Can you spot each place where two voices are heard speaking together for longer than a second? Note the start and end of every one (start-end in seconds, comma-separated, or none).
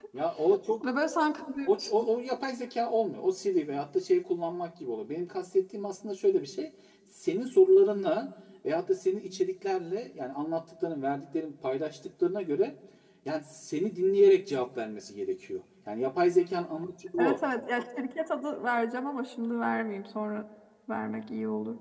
none